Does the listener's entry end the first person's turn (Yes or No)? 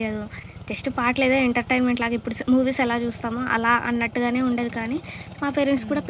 No